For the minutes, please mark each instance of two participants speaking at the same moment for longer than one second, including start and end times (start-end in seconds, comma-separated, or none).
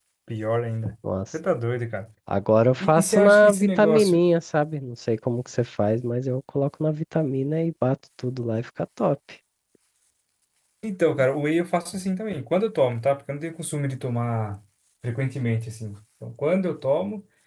2.8-4.2